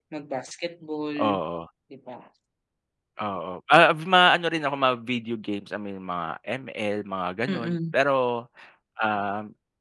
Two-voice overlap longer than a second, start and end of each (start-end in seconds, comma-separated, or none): none